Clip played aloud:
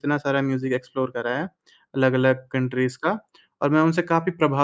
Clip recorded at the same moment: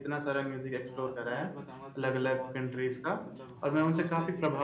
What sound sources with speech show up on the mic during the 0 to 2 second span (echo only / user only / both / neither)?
both